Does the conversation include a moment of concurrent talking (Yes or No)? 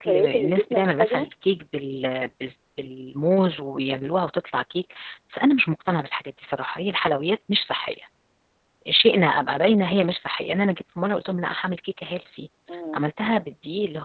Yes